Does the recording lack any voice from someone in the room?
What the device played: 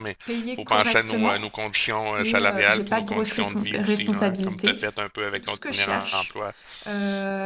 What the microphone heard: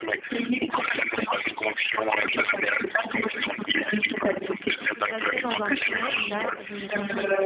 No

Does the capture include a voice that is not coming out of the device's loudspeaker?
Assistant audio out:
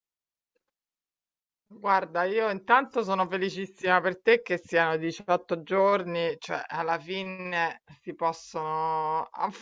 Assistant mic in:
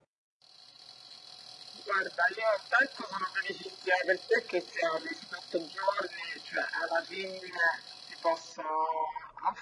No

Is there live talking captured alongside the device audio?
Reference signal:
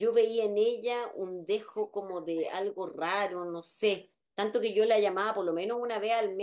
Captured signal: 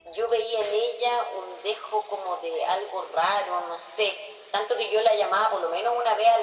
No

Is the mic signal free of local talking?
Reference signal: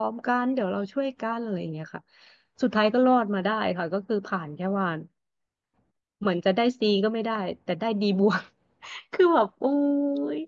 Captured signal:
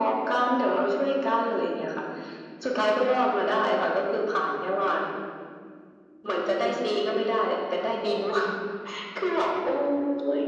Yes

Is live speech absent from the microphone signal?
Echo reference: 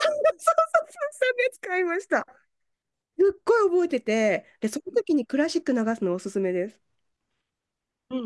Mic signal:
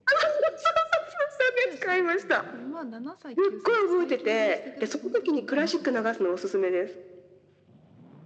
No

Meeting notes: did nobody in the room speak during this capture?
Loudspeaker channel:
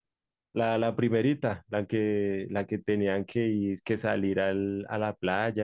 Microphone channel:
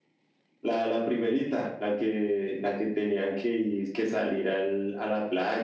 Yes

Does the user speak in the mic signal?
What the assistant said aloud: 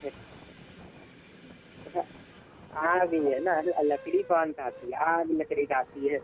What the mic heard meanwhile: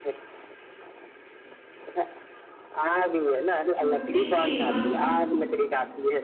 Yes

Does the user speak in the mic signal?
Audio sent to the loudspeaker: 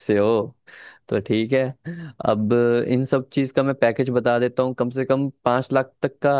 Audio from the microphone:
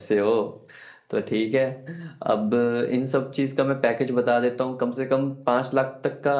No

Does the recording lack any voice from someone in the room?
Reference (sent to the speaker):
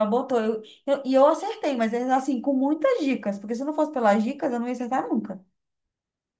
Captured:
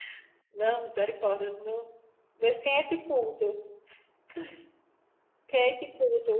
No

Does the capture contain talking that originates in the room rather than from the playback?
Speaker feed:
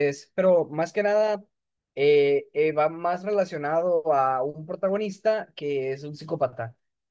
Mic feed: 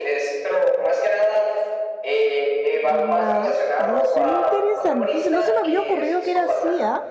Yes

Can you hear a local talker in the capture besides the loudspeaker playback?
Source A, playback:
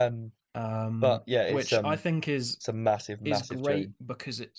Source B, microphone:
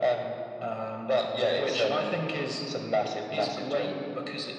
No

